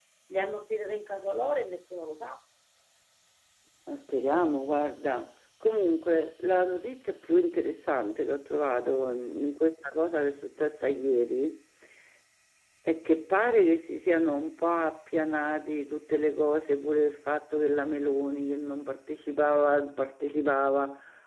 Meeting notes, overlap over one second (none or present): none